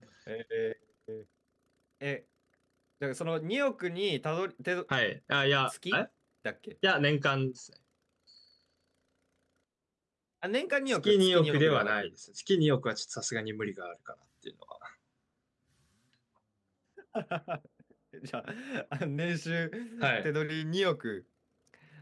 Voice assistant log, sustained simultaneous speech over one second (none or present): present